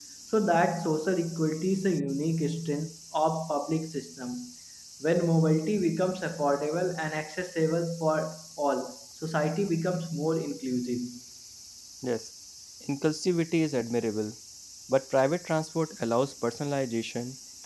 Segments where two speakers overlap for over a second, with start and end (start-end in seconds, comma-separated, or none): none